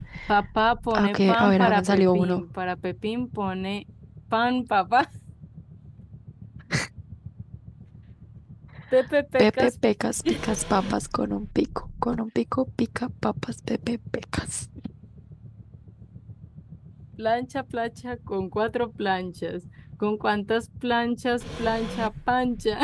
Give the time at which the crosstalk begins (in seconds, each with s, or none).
0.9 s